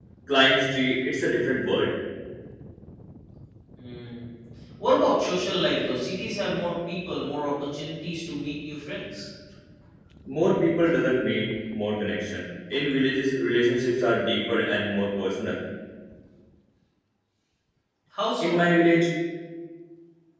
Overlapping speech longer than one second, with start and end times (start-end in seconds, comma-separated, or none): none